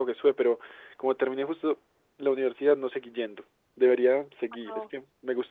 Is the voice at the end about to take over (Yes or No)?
No